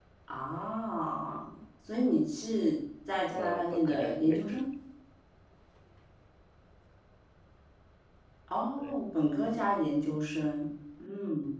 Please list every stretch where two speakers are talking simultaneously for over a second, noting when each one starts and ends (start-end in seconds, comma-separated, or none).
3.4-4.7